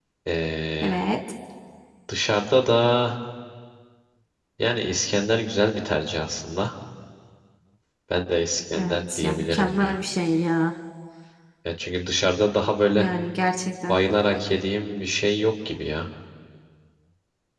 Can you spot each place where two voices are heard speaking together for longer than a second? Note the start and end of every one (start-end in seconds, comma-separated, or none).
8.7-10.0